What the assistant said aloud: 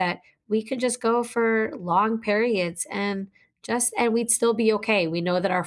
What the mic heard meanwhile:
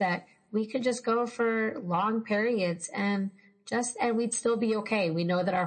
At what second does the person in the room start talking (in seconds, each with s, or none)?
none